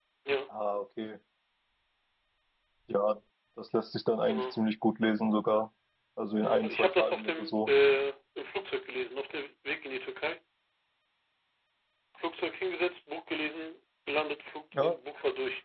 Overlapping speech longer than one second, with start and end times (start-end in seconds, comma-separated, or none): 6.4-7.7